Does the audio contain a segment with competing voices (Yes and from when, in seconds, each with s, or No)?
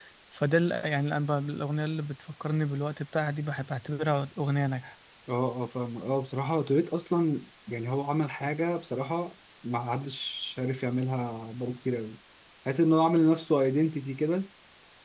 No